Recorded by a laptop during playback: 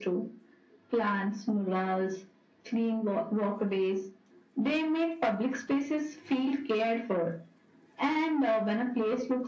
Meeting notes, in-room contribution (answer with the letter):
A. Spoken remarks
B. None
B